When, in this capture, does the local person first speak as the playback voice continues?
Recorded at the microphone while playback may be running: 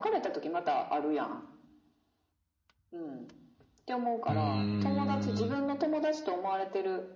4.3 s

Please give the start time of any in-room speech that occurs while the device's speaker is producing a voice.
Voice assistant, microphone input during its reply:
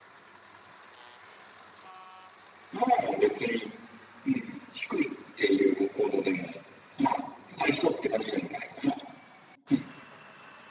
none

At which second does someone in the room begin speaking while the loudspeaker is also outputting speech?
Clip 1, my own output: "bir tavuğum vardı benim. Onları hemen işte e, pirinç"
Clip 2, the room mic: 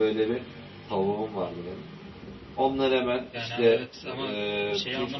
3.3 s

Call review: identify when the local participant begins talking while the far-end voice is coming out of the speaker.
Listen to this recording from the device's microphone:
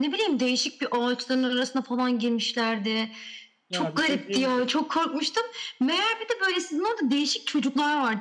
3.7 s

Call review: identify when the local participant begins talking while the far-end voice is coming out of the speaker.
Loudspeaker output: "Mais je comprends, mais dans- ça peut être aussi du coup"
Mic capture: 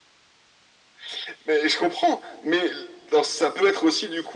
none

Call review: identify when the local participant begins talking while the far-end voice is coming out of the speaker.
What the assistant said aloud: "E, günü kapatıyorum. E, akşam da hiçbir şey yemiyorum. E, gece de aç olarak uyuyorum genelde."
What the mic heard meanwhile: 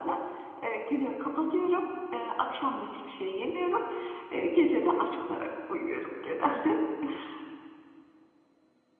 none

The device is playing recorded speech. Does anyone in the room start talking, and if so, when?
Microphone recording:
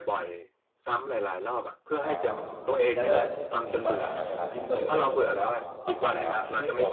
2.0 s

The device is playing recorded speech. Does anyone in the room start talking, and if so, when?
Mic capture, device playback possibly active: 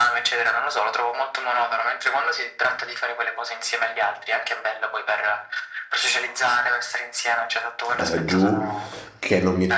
8.0 s

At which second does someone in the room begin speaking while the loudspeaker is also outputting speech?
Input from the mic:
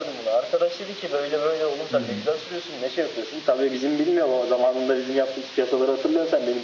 1.9 s

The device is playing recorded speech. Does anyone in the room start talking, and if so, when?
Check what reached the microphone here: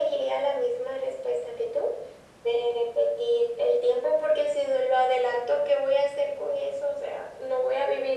none

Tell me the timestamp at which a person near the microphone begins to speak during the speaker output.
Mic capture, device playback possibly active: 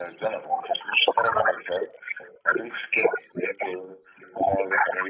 none

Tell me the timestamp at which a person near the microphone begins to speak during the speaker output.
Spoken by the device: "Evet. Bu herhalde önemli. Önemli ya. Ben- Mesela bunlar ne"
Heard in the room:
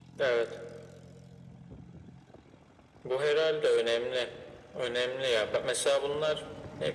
none

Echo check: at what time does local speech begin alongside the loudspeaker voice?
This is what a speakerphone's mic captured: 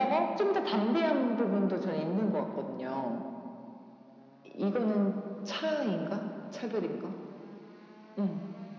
none

